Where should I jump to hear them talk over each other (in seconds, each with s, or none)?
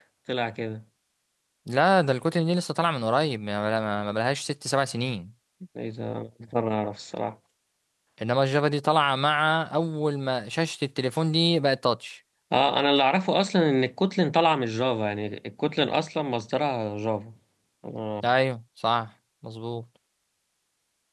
none